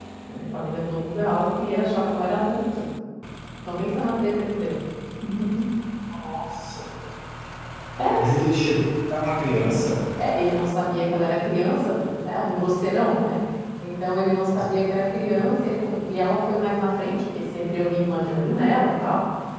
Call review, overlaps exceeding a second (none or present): none